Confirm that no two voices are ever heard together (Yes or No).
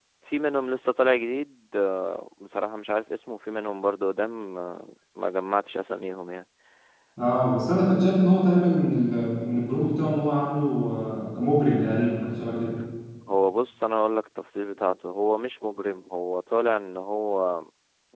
Yes